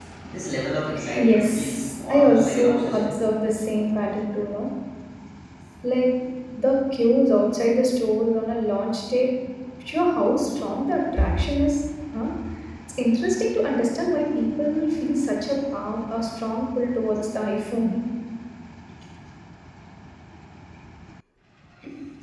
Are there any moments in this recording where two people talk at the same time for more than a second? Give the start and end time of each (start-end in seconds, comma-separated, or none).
1.2-3.1